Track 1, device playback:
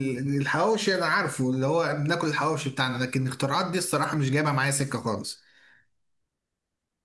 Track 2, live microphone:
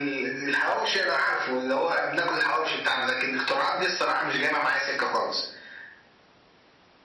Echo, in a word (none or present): present